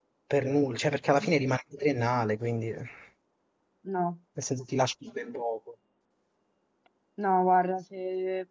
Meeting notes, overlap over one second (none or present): none